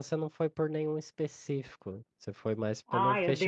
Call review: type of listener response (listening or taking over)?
taking over